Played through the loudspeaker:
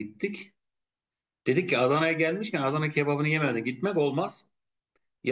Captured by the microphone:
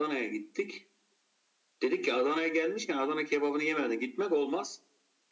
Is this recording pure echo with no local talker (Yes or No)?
Yes